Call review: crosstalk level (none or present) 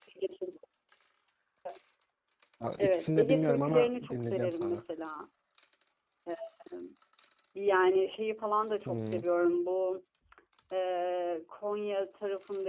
present